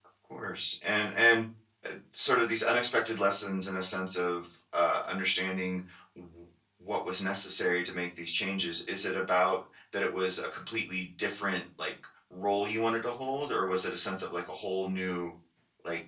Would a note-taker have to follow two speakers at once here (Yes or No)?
No